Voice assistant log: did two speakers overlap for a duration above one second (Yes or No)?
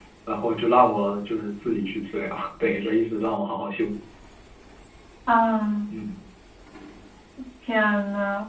No